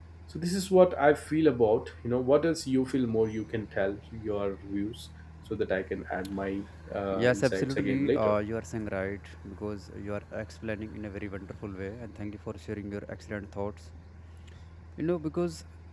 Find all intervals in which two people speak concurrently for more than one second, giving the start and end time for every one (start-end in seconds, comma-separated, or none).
7.1-8.3